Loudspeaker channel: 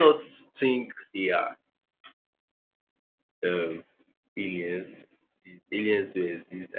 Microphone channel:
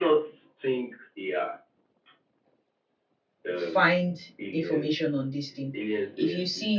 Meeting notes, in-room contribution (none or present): present